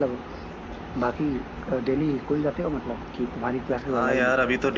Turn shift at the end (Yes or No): Yes